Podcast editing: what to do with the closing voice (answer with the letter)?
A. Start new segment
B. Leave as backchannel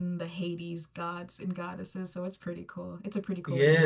A